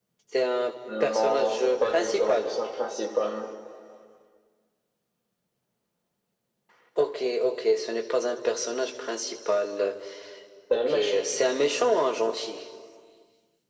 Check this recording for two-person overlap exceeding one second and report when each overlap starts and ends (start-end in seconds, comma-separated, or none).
1.0-2.5